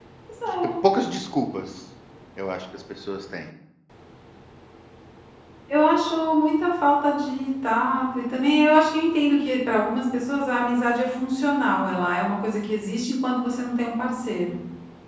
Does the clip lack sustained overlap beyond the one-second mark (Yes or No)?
Yes